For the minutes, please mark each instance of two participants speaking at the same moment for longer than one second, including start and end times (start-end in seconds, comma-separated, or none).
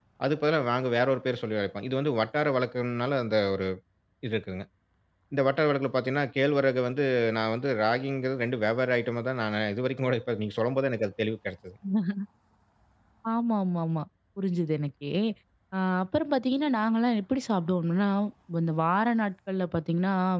none